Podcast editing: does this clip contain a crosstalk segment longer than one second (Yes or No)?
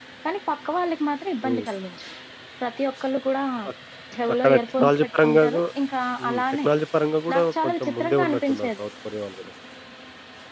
Yes